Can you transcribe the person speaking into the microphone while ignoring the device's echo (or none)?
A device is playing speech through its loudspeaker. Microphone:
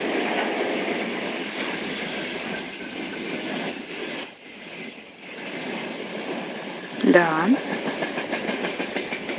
Да,